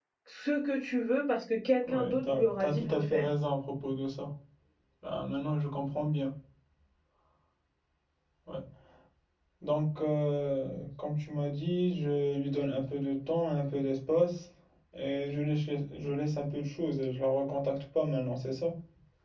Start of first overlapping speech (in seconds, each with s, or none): 1.9 s